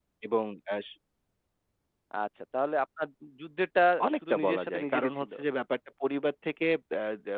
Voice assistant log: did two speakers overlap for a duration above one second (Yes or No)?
Yes